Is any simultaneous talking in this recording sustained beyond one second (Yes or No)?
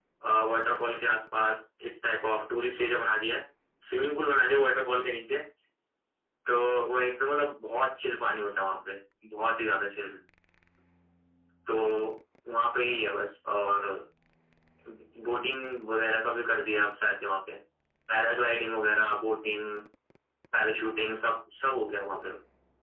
No